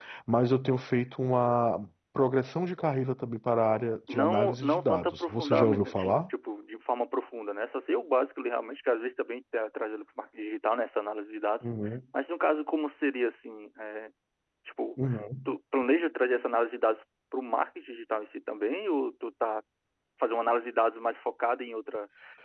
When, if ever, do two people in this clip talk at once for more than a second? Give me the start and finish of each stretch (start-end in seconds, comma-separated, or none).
4.1-6.2